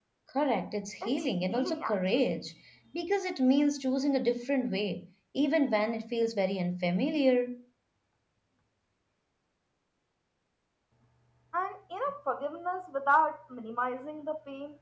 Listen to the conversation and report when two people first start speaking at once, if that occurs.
1.0 s

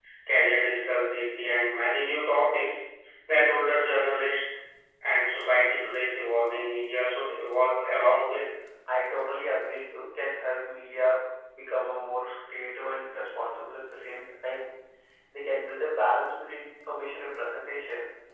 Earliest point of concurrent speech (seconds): none

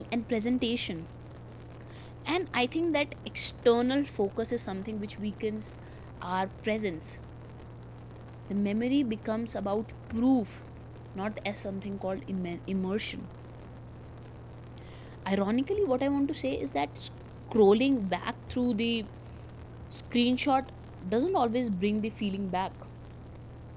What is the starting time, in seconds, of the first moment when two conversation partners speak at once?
none

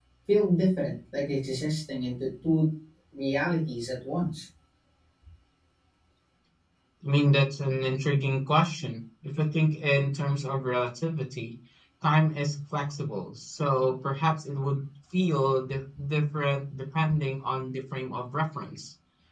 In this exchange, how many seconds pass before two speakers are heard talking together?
none

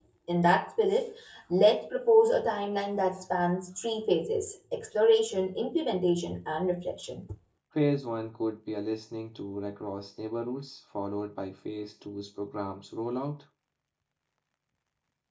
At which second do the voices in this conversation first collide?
none

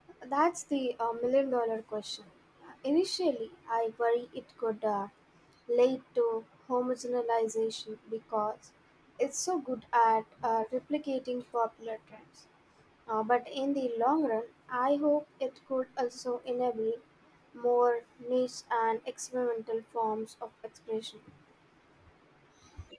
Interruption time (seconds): none

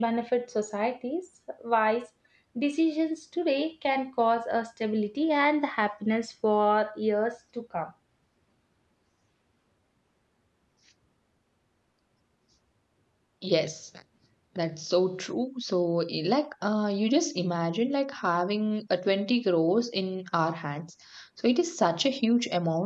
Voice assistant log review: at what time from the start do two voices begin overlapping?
none

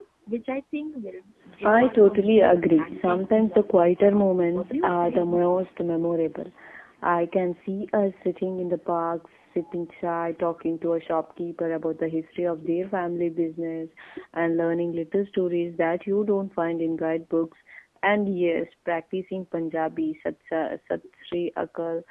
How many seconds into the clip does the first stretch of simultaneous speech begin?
1.6 s

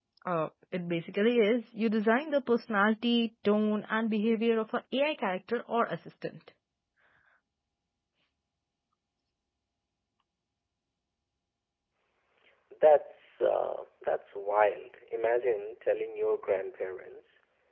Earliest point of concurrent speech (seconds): none

